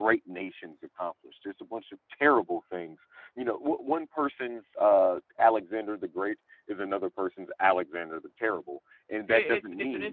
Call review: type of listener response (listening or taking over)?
taking over